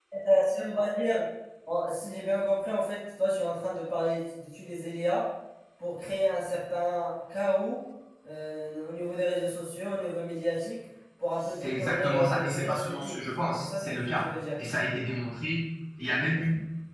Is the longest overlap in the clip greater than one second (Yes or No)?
Yes